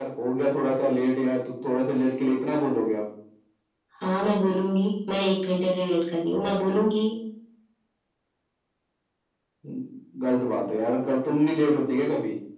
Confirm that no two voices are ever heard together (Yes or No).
Yes